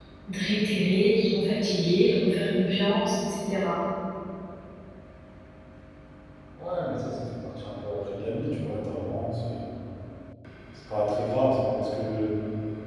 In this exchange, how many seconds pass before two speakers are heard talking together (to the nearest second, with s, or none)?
none